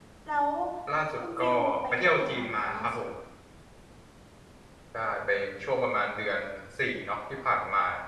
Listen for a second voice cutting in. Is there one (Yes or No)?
Yes